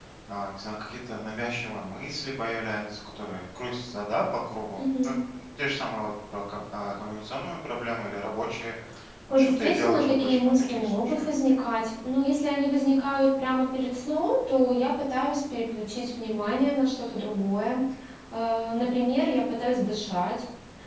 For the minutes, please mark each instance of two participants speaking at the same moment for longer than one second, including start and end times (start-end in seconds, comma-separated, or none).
9.3-11.3